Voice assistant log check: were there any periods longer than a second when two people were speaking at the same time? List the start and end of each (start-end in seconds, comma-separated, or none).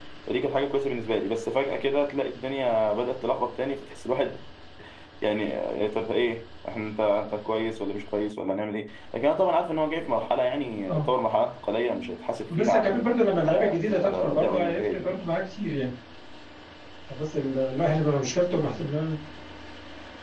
13.4-15.1